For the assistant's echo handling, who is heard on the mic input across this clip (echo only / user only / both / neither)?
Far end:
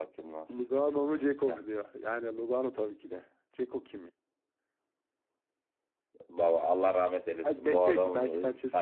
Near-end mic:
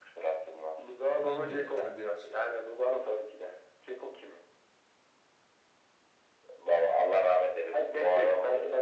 both